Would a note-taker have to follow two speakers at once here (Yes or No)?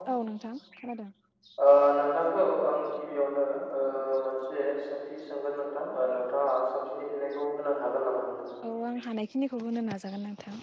No